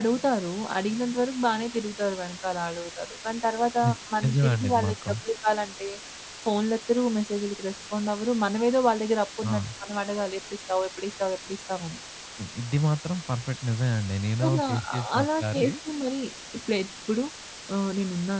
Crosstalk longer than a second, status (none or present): present